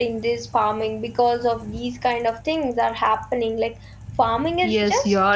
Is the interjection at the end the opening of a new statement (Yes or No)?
Yes